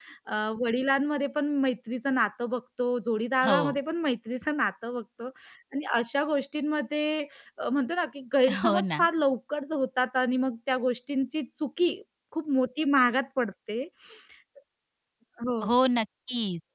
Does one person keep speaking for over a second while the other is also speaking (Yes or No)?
No